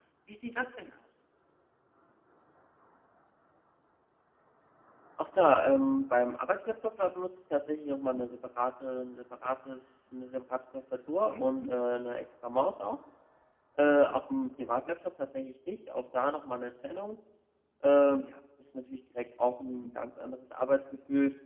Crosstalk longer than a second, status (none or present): none